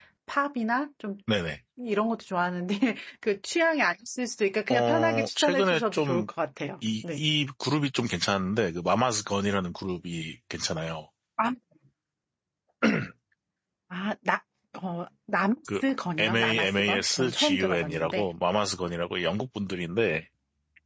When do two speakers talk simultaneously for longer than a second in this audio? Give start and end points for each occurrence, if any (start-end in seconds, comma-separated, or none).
4.7-6.3, 16.2-18.3